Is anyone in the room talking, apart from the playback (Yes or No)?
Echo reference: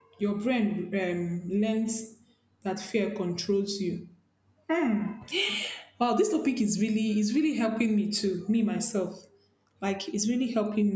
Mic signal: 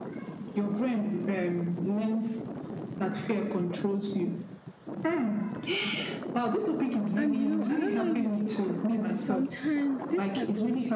Yes